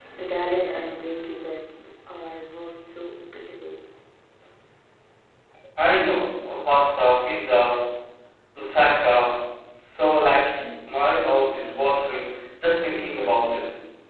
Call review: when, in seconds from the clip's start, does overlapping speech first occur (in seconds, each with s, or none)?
none